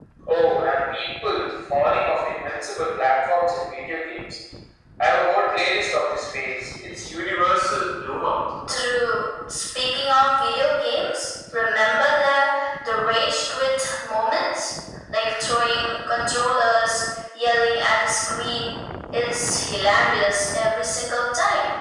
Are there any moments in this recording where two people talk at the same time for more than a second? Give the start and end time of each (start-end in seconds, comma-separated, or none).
none